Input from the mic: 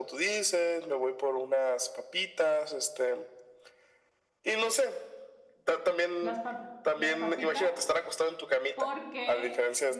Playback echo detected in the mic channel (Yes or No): Yes